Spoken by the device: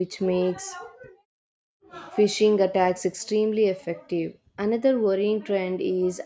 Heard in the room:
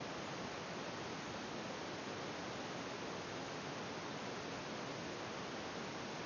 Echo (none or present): none